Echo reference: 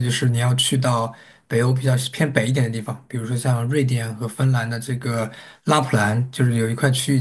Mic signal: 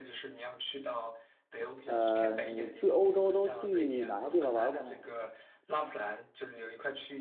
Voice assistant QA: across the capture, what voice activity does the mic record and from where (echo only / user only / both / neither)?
both